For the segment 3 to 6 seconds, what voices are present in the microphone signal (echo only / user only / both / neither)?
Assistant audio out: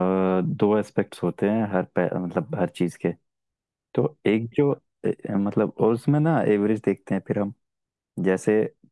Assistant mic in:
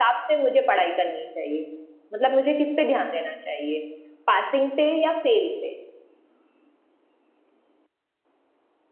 user only